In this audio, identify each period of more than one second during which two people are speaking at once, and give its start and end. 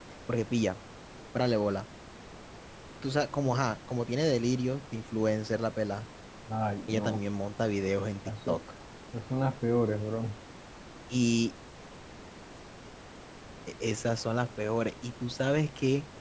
none

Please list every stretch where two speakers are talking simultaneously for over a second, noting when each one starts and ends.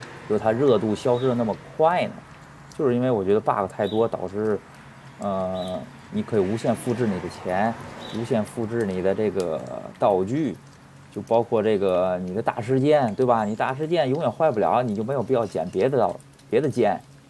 none

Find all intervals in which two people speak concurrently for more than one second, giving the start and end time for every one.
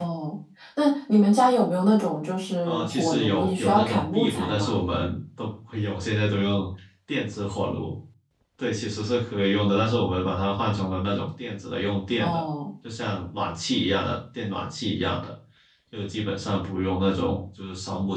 2.6-4.8

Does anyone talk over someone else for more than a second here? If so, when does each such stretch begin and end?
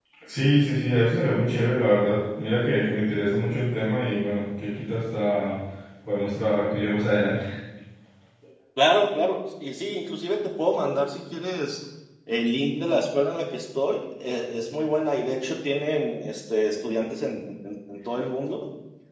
none

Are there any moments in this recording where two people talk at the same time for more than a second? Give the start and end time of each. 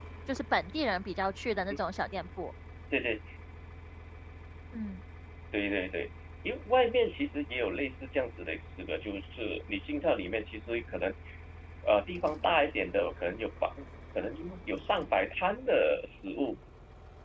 none

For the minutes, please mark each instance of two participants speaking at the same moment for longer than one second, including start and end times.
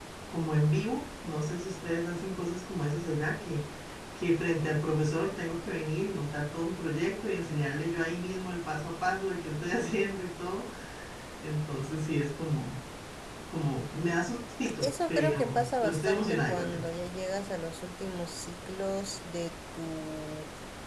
14.6-16.9

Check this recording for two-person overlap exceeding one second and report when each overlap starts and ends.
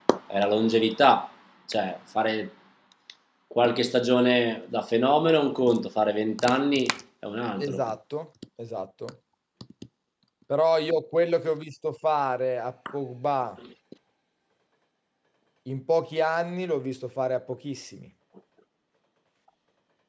none

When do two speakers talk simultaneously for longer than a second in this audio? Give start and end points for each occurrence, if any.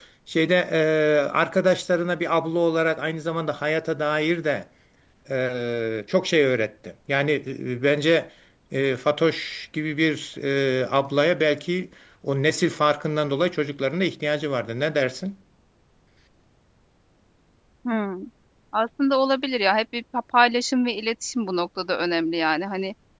none

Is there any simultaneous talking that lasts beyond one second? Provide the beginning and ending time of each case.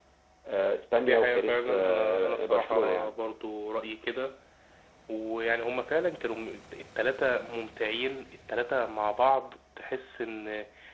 1.0-3.2

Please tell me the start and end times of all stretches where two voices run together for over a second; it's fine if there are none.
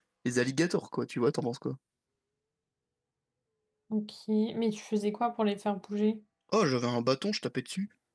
none

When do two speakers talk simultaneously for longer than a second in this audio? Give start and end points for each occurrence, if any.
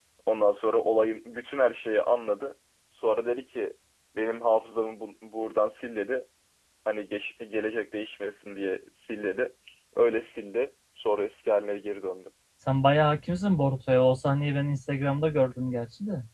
none

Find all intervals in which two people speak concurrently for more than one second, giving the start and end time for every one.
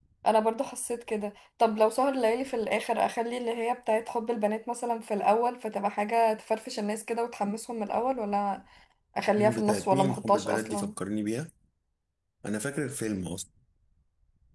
9.4-10.9

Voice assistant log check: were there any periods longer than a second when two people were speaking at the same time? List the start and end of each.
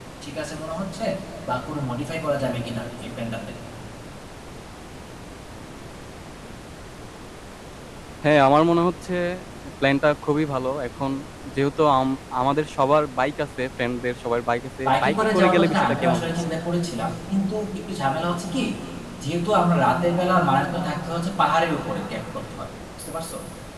14.9-16.3

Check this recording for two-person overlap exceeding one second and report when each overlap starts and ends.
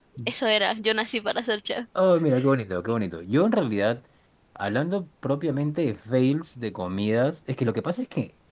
none

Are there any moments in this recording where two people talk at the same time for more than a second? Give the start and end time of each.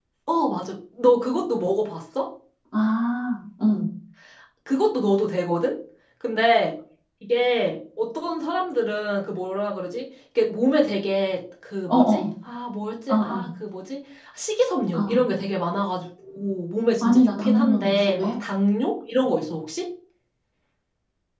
17.0-18.3

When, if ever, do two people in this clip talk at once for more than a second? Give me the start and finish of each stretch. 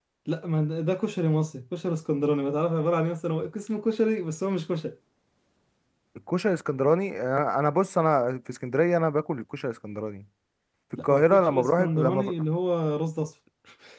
11.0-12.3

